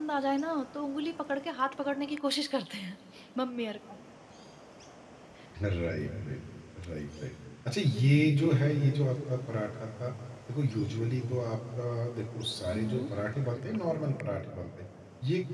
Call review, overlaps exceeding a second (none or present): none